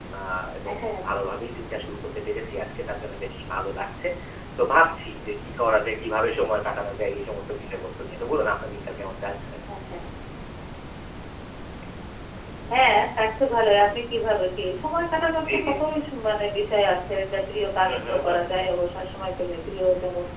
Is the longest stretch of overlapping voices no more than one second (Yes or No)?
Yes